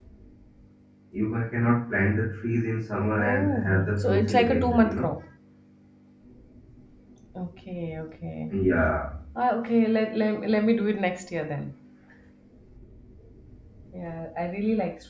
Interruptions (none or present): present